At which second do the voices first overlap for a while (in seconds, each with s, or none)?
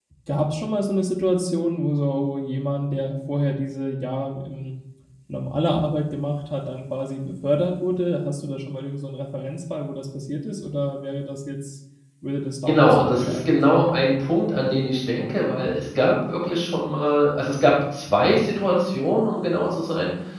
12.7 s